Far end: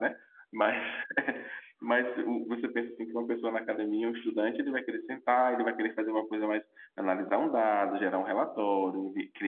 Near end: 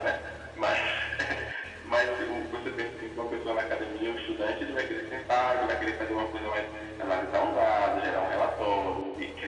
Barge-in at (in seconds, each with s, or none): none